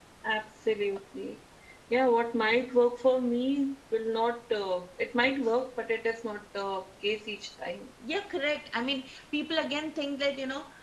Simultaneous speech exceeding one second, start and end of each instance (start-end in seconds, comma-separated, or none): none